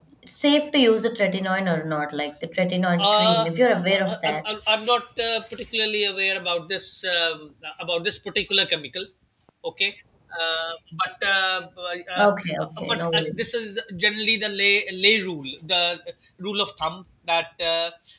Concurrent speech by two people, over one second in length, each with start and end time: 3.0-4.4, 12.2-13.4

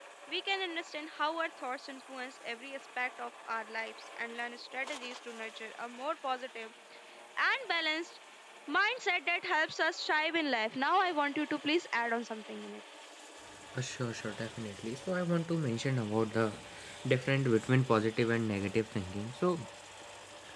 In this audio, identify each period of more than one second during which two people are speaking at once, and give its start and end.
none

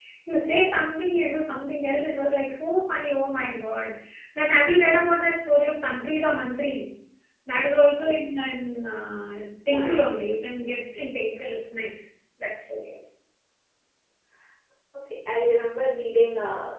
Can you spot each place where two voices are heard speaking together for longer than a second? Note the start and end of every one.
none

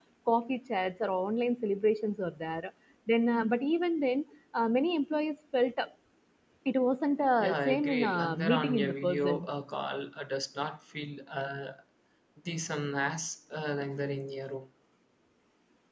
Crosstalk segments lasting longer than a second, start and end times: 7.4-9.5

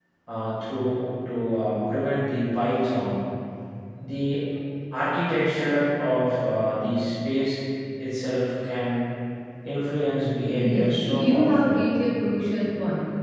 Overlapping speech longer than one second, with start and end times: 10.5-11.9

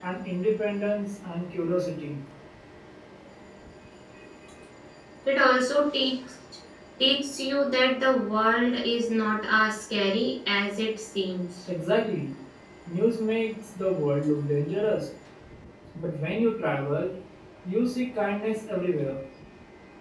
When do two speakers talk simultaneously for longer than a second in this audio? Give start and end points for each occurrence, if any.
none

